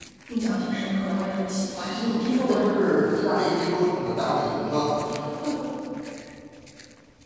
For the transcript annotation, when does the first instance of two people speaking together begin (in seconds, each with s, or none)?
1.7 s